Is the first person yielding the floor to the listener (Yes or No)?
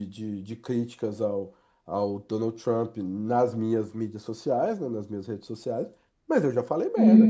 No